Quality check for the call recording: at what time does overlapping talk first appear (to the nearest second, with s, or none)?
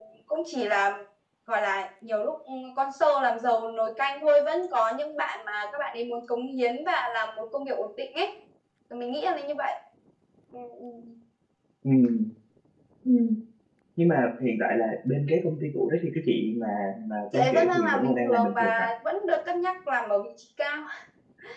17 s